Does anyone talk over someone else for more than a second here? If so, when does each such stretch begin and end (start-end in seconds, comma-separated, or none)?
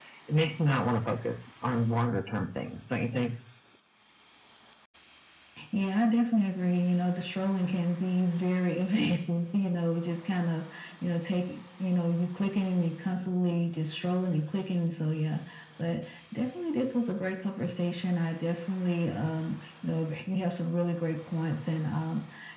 none